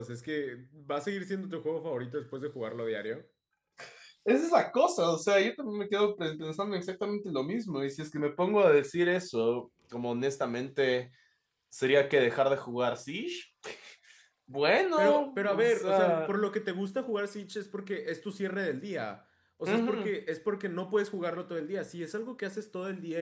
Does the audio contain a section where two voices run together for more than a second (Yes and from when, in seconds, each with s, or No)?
Yes, from 15.0 s